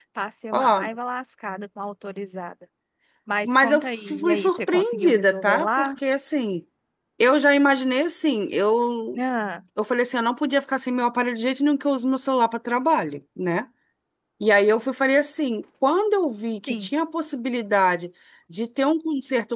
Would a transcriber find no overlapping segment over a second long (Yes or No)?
No